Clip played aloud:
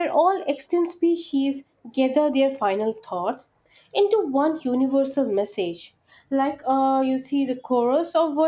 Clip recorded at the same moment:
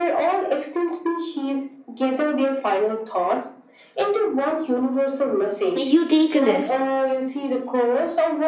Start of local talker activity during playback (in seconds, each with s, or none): 5.7 s